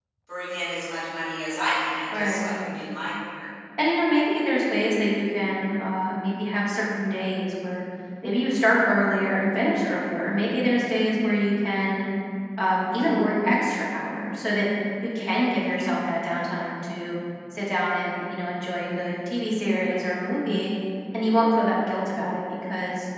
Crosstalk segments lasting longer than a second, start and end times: none

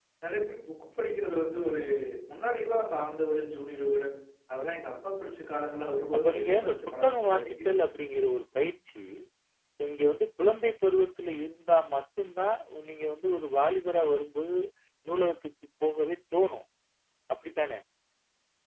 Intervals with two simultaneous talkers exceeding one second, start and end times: 6.1-7.7

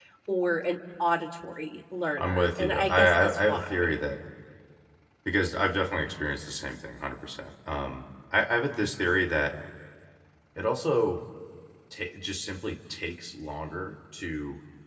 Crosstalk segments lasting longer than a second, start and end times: 2.2-3.9

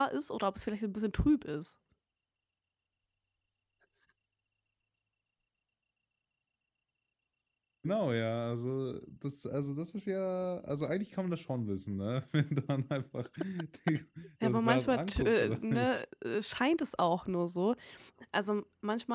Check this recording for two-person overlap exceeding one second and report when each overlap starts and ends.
14.4-15.9

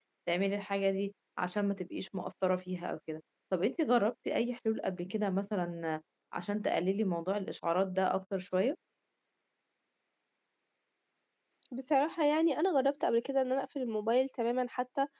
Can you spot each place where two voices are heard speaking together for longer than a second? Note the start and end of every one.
none

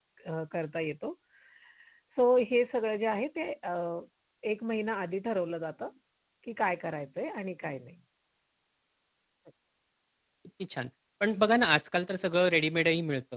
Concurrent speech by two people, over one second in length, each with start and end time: none

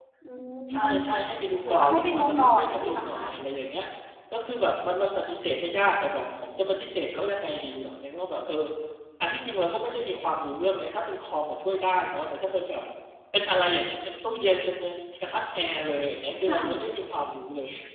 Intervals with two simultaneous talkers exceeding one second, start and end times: 1.7-3.2

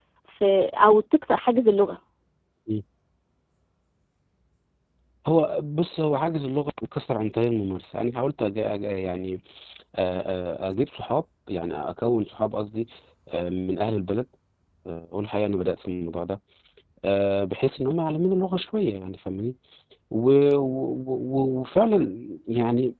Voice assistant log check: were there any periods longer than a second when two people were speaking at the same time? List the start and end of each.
none

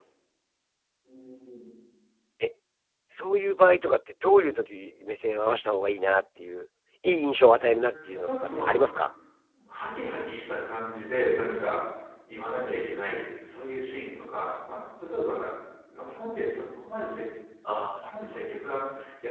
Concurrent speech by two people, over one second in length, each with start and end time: 7.5-8.7

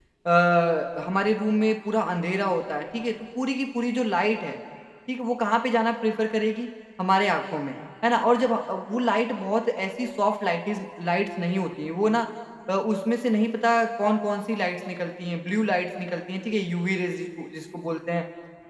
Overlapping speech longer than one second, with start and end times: none

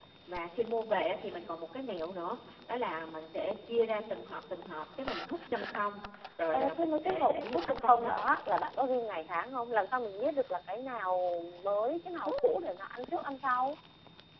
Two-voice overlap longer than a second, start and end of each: 6.5-8.1

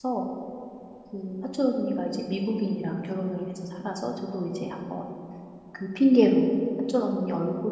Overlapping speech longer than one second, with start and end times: none

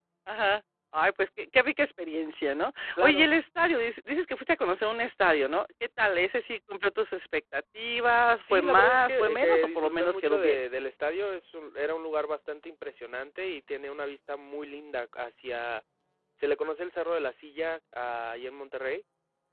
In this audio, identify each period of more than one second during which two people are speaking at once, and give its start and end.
8.5-10.6

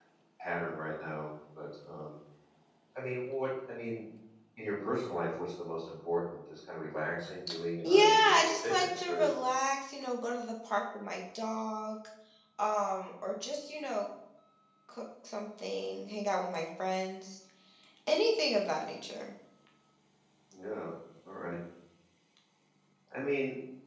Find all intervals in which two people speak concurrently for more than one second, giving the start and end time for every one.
7.8-9.3

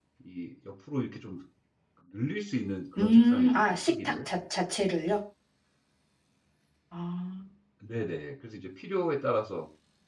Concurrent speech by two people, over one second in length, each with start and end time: 3.0-4.3

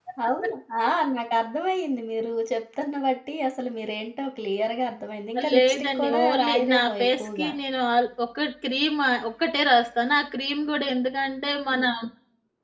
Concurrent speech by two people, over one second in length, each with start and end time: 5.5-7.5

